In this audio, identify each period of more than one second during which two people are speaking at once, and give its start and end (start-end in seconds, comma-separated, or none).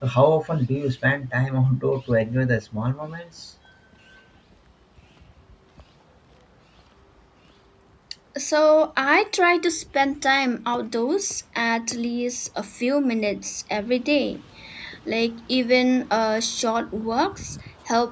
none